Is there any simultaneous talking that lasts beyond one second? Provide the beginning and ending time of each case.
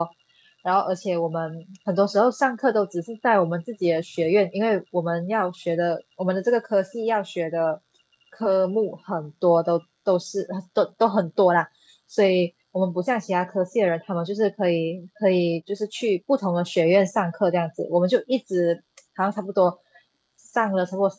none

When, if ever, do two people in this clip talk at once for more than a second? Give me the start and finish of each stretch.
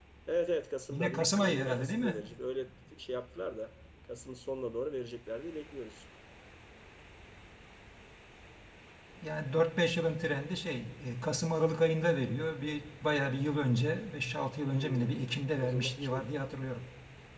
0.9-2.1, 14.8-16.2

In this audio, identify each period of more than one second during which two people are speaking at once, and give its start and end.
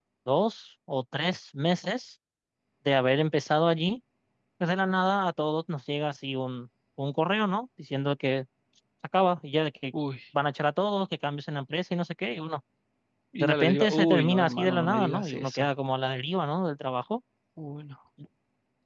13.4-15.7

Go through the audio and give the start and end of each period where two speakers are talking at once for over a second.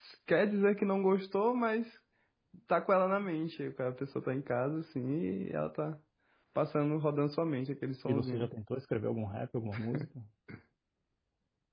none

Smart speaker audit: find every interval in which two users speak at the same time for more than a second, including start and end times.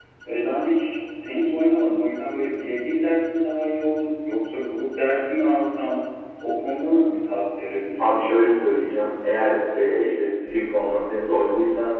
none

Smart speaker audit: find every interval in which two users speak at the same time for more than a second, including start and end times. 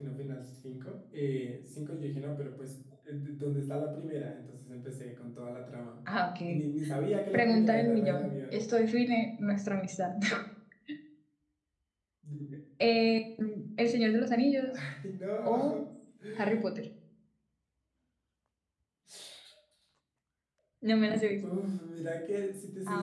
7.3-8.6

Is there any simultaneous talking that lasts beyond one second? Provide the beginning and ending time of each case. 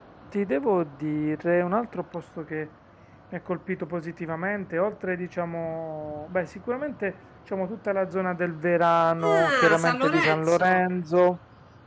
9.2-10.7

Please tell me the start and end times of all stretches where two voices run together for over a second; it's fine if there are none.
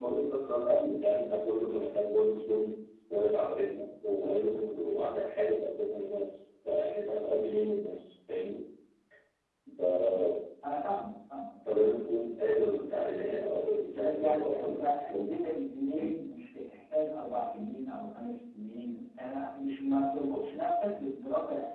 13.9-15.3

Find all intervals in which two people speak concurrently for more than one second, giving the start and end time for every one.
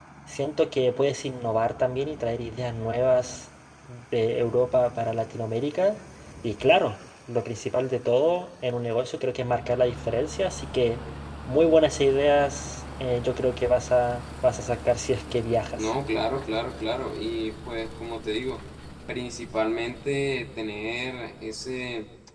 none

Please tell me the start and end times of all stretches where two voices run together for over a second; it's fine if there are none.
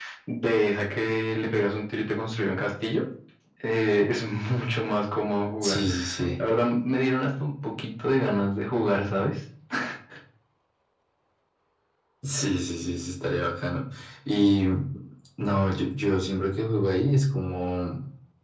none

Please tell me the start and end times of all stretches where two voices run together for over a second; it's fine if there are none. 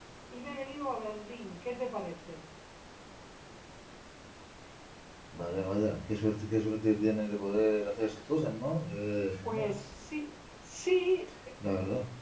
none

